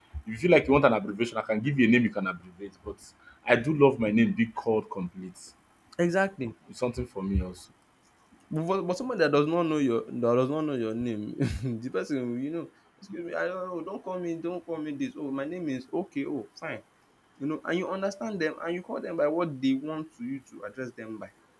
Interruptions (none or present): none